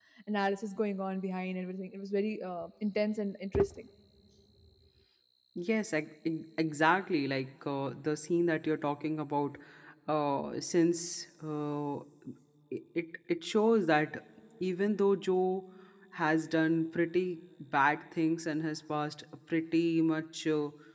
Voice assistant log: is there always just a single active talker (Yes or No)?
Yes